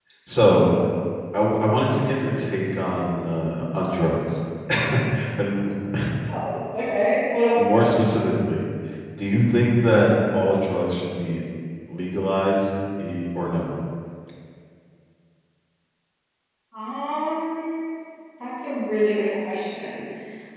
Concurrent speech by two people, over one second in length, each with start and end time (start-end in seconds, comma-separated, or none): none